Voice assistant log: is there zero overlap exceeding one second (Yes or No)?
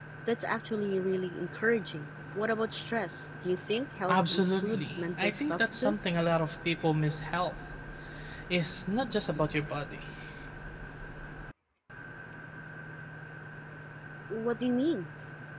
No